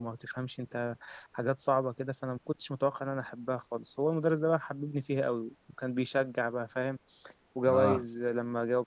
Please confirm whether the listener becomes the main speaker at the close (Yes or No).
No